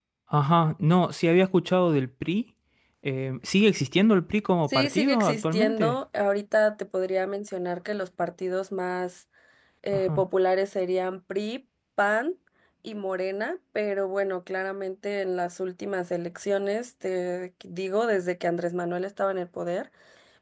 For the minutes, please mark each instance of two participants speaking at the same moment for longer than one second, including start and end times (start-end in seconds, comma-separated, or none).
4.6-6.0